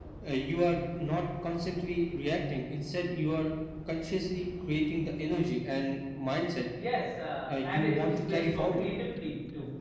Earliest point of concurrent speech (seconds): 7.5 s

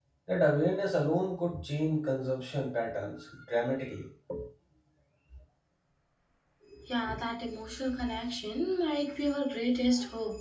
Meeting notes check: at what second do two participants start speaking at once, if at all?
none

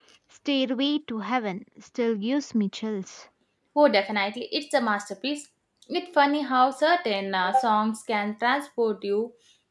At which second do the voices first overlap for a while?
none

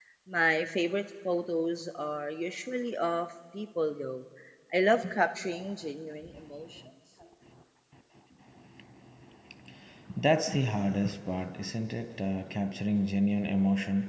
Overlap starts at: none

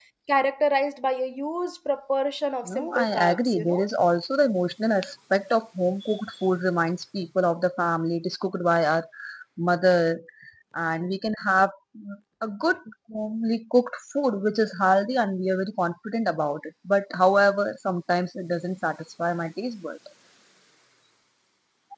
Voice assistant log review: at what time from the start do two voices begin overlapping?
2.6 s

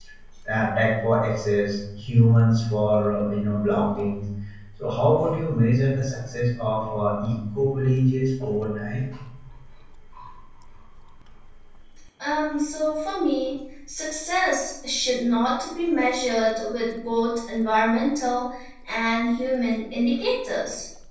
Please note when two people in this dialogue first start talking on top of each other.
none

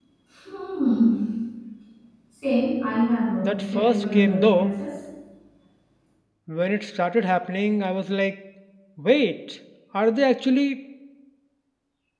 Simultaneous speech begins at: 3.4 s

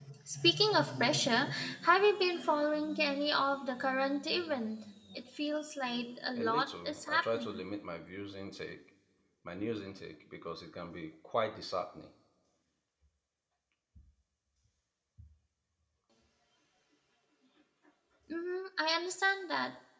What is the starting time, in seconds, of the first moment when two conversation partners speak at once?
6.3 s

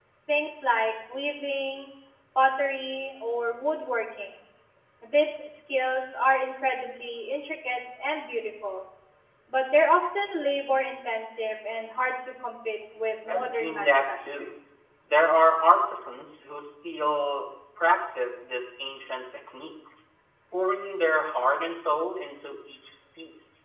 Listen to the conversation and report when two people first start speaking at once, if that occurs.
13.3 s

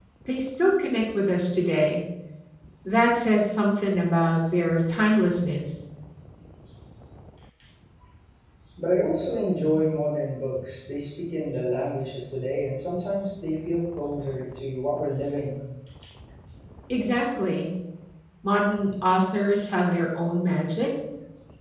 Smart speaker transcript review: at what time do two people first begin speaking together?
none

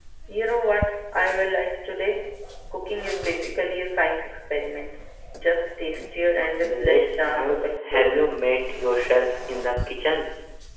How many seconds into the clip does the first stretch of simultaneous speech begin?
6.7 s

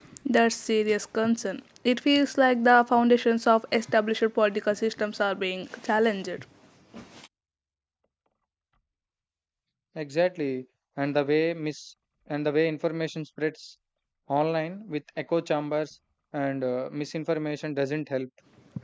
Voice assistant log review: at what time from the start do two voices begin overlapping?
none

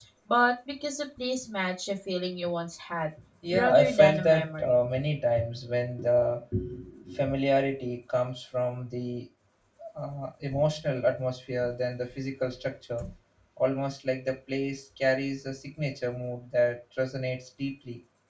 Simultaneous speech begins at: 3.5 s

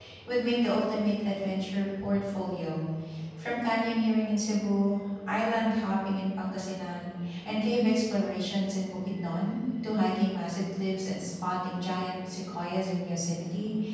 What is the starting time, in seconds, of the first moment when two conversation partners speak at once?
none

